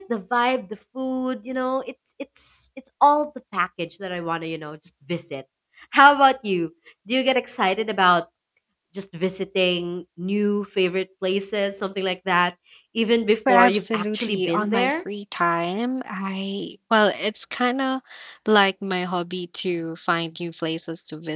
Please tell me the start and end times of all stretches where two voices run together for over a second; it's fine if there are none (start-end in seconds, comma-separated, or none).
13.5-15.0